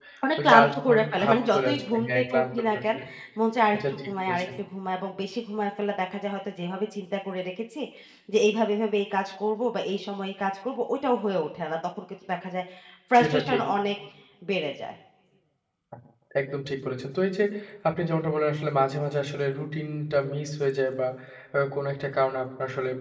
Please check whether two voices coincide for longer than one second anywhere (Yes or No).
Yes